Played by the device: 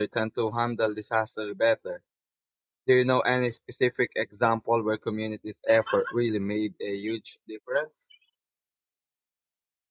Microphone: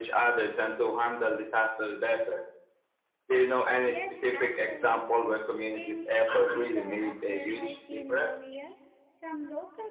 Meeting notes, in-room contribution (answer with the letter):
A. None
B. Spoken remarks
B